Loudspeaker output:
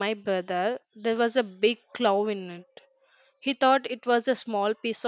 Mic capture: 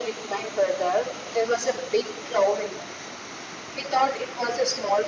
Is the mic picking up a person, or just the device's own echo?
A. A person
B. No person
B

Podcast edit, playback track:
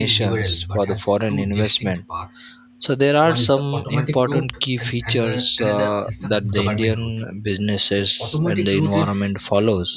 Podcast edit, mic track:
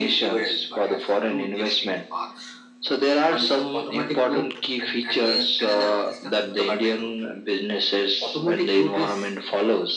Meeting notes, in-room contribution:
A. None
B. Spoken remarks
A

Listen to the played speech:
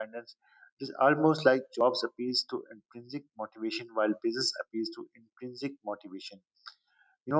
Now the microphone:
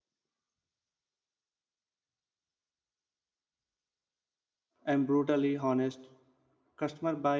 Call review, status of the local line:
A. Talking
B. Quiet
A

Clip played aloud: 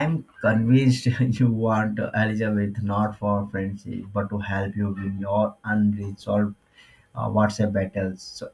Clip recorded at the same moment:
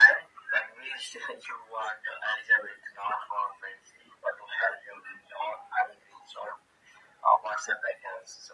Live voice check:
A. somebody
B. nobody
B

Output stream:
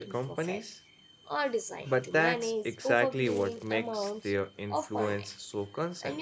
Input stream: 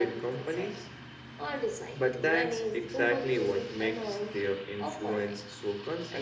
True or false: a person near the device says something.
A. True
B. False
B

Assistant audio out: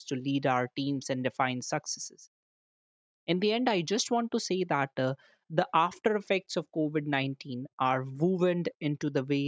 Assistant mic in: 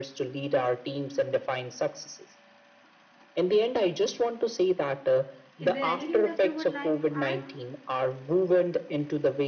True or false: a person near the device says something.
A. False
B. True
B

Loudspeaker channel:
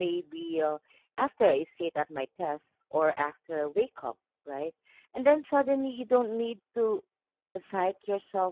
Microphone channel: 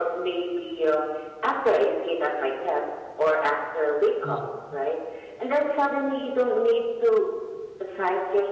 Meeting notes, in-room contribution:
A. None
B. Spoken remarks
B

